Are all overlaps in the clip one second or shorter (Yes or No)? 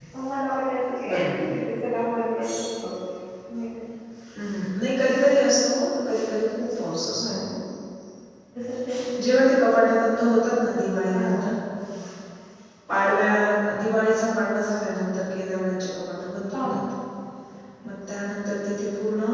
Yes